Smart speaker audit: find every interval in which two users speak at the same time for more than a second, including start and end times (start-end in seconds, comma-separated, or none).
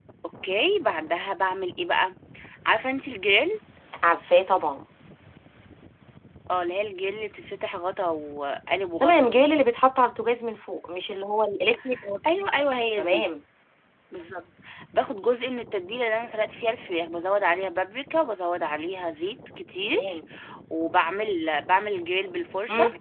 none